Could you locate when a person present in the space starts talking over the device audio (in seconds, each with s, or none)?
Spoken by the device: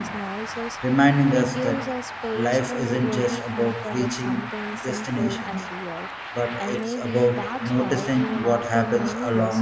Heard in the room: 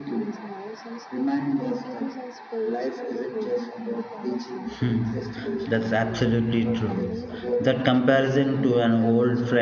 4.8 s